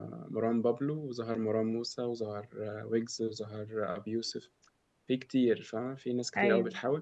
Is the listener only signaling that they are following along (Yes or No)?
Yes